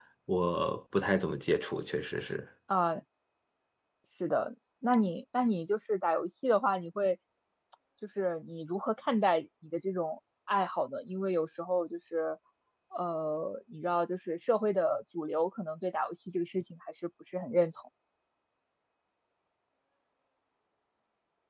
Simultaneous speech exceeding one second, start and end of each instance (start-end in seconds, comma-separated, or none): none